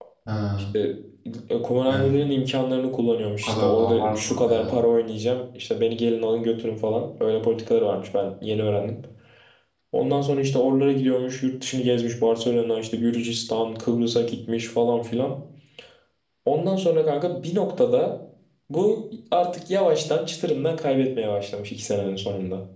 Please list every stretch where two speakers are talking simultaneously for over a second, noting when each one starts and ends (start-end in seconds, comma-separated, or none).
3.4-4.7